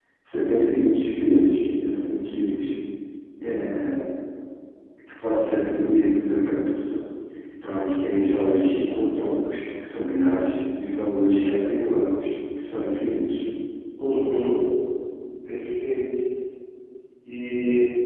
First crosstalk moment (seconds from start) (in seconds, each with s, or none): none